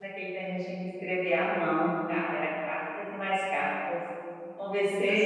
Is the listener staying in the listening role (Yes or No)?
Yes